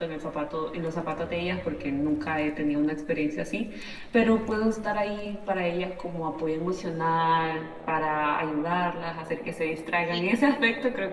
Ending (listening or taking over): listening